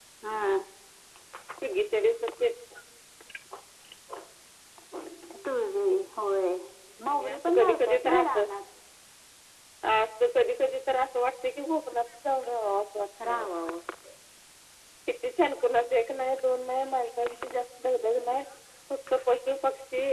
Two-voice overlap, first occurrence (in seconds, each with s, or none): 7.1 s